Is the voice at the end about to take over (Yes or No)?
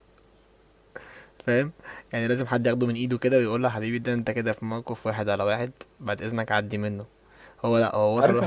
No